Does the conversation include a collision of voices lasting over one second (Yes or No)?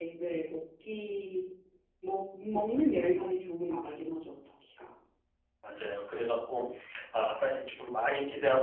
No